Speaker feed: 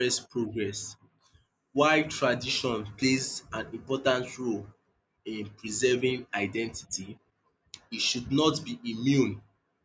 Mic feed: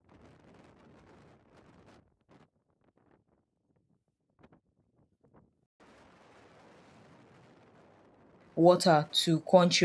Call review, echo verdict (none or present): none